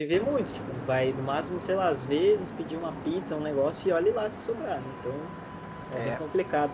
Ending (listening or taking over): listening